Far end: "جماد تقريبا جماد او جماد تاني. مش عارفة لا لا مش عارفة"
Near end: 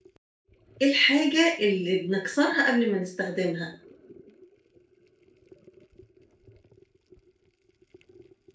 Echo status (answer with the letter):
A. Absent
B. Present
A